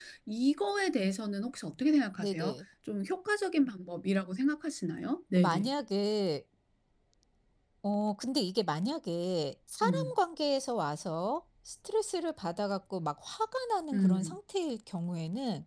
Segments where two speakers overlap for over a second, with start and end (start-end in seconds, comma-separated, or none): none